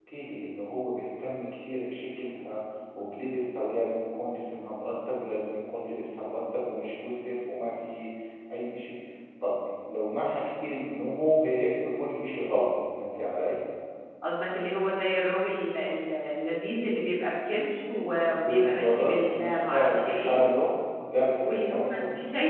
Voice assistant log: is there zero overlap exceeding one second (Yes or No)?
No